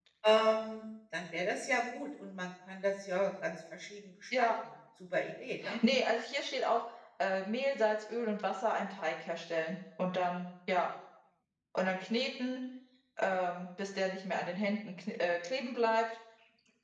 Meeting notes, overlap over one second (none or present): none